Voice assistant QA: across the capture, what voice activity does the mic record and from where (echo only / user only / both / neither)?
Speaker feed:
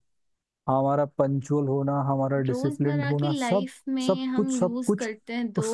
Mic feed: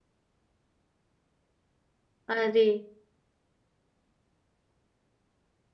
user only